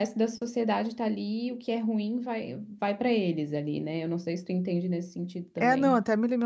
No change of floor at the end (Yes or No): No